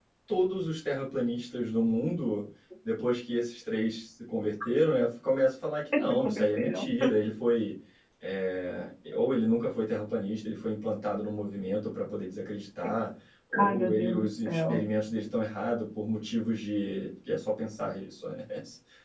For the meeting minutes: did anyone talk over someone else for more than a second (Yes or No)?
Yes